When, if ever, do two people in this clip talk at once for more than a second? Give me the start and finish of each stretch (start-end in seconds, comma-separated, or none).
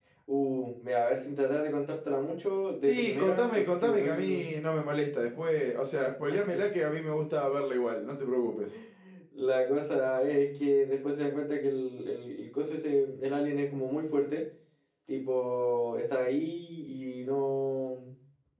2.9-4.5